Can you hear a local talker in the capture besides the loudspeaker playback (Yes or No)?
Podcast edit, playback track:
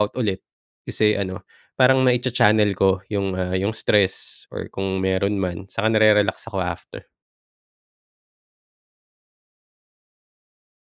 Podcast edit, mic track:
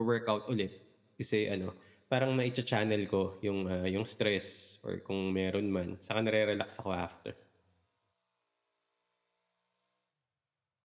No